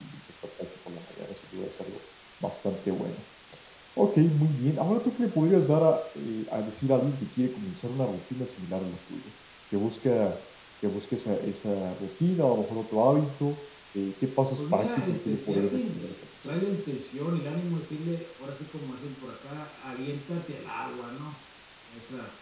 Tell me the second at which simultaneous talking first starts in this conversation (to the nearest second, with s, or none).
15 s